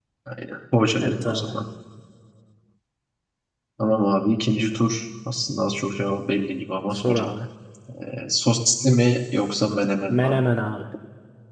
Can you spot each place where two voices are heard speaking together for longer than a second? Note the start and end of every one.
none

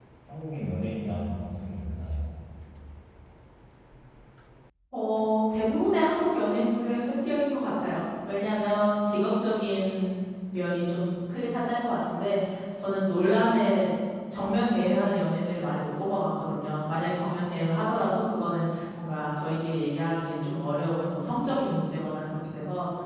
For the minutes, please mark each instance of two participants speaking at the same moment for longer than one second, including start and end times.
none

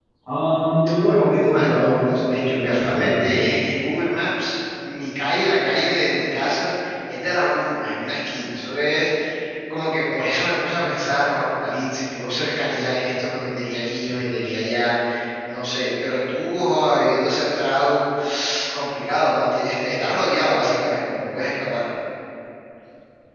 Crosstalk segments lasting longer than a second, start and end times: 1.1-3.4

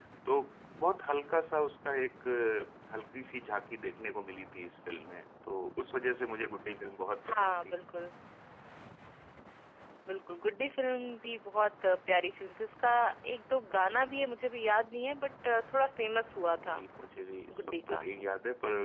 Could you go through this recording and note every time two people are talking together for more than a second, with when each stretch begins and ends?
none

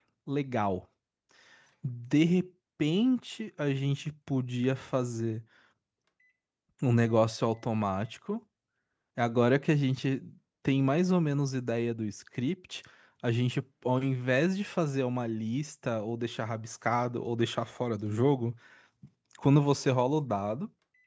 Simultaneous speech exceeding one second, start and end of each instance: none

